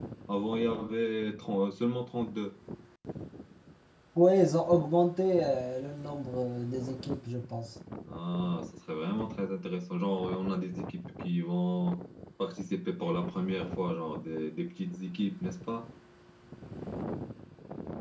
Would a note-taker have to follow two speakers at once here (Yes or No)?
No